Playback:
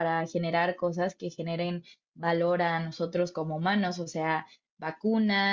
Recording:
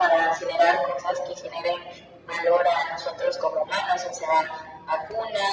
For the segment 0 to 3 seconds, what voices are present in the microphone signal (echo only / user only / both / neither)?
echo only